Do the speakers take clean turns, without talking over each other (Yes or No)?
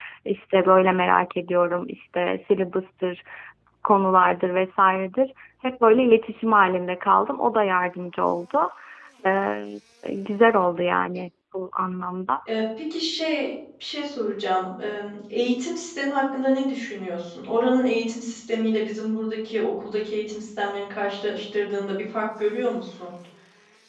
Yes